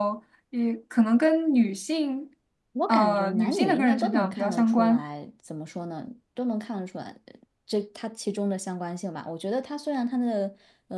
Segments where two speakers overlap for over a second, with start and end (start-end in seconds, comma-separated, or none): 2.9-5.0